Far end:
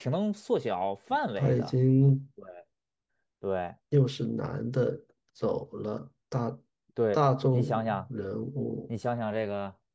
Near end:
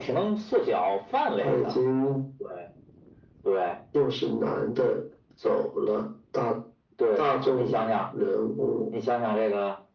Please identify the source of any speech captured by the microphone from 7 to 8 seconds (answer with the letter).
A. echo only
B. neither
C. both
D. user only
A